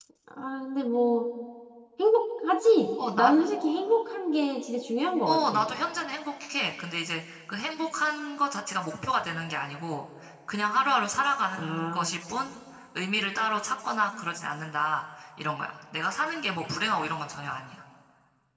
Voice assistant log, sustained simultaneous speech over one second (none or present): none